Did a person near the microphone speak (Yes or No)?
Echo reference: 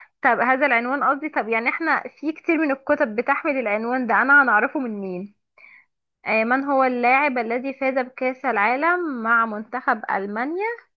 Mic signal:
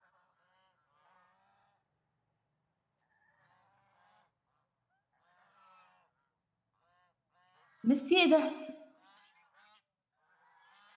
Yes